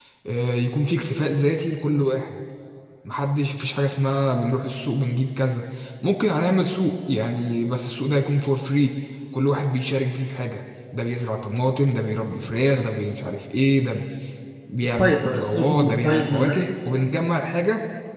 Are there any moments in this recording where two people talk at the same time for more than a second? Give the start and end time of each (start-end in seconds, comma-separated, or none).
14.9-16.7